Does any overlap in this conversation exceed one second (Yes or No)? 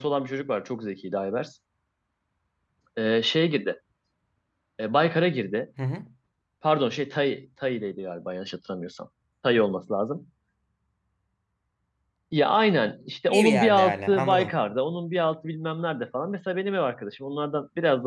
Yes